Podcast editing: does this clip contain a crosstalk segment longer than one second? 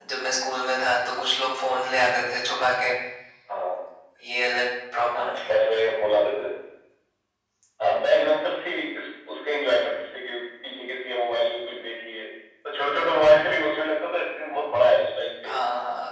No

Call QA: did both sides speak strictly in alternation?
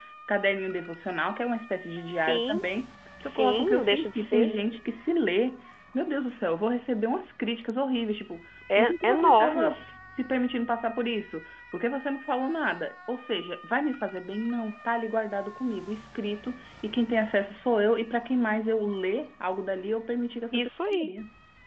No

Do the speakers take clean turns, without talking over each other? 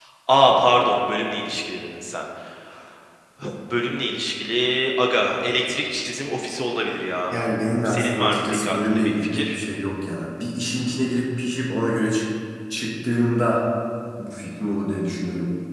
No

